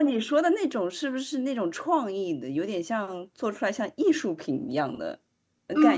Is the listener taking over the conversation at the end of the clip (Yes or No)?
Yes